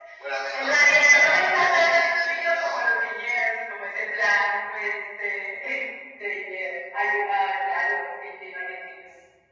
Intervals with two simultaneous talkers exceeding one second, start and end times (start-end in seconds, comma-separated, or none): 0.5-2.9